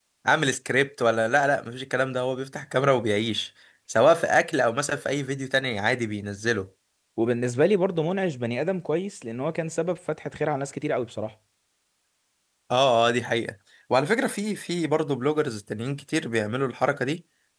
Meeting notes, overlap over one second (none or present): none